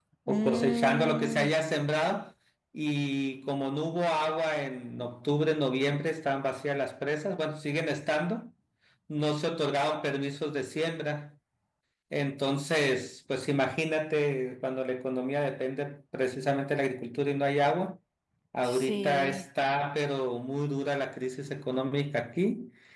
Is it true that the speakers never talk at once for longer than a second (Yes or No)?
No